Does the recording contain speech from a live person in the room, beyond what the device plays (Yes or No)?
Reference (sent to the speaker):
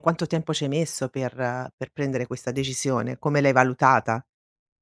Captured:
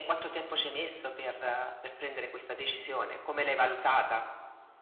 No